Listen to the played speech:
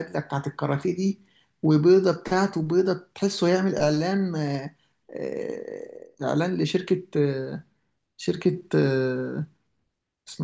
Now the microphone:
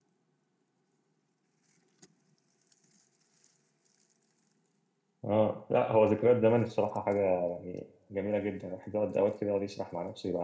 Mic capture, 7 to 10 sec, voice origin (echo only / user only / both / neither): user only